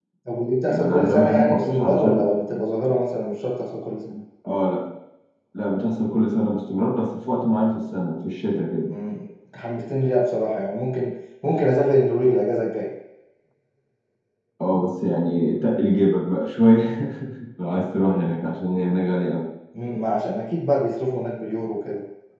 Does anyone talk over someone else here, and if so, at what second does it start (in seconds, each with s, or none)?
0.7 s